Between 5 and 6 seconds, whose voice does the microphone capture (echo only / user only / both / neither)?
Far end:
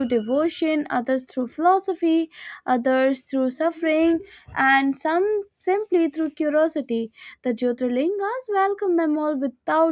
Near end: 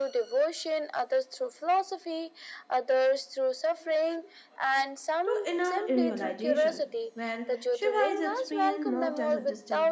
both